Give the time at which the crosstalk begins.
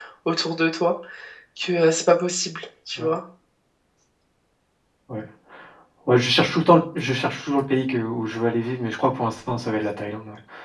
none

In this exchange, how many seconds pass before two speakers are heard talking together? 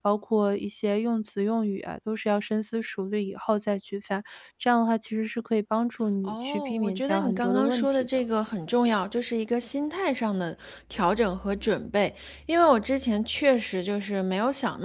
6.3 s

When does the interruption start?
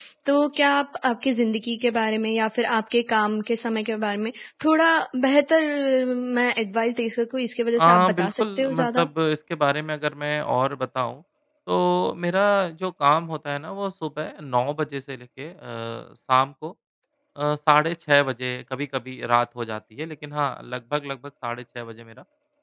7.8 s

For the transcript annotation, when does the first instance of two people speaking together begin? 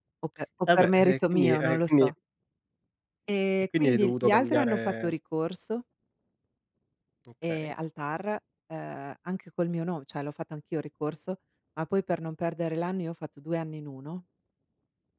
0.8 s

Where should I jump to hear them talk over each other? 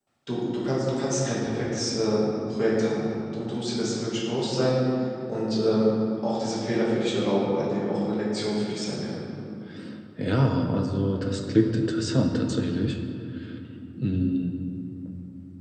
none

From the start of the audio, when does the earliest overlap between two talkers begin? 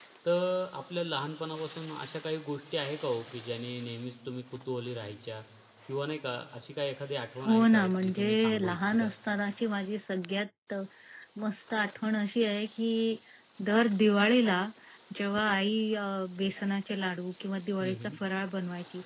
7.5 s

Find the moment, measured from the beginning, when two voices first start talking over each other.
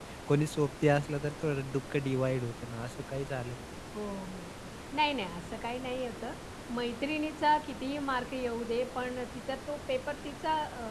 none

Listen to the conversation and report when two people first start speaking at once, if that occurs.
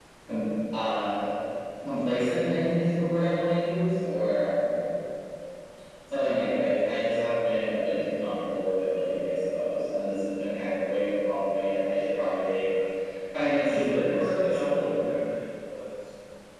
13.7 s

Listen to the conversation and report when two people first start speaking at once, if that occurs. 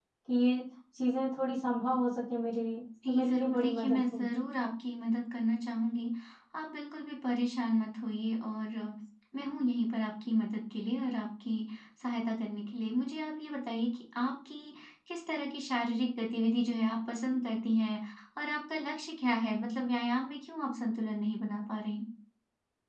3.0 s

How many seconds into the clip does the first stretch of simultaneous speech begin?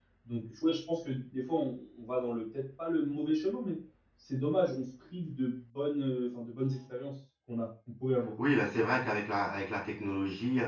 none

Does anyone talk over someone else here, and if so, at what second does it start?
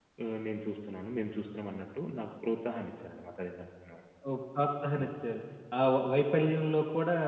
none

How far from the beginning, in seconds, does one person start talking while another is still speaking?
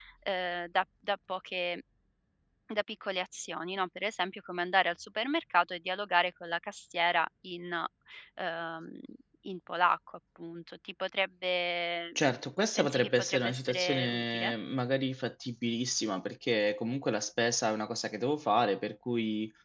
12.8 s

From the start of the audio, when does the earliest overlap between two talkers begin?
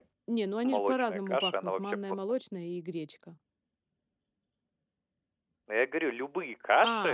0.7 s

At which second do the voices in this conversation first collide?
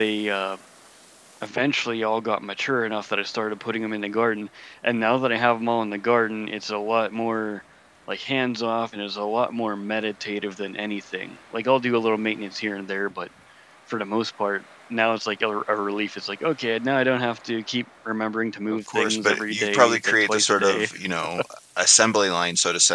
18.7 s

